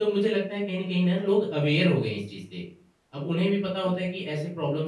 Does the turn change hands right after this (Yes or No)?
No